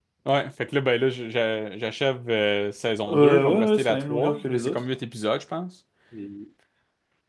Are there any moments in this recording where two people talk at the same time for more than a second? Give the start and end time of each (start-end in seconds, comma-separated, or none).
3.1-4.8